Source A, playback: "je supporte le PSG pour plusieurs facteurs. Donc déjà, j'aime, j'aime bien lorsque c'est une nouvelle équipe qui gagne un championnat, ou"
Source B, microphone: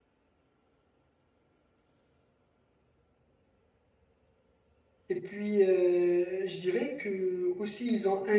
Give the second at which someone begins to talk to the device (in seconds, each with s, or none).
5.1 s